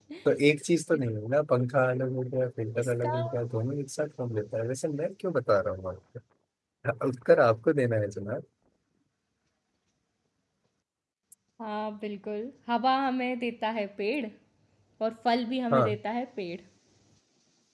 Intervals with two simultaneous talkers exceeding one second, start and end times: none

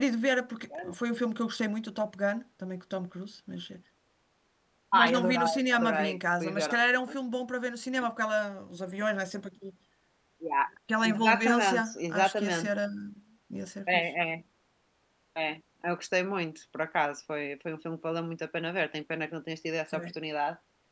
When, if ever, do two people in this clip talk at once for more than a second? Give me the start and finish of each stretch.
4.9-6.7, 11.0-12.7

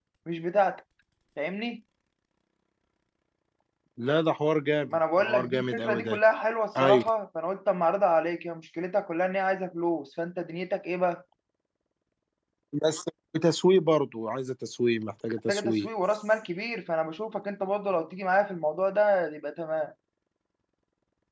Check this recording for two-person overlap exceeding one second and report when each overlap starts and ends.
4.9-6.2

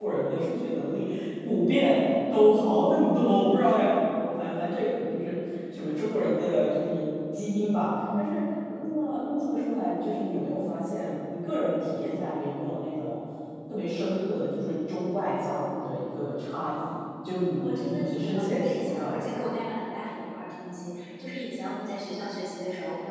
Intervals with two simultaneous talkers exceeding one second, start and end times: 17.6-19.3

